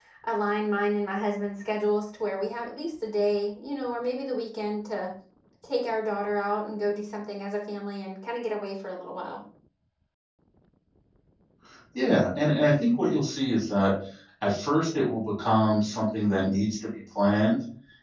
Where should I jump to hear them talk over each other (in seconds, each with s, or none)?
none